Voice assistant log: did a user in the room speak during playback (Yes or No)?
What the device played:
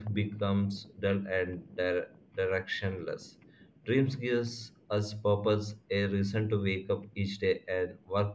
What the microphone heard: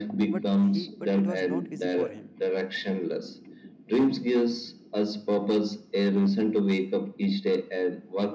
Yes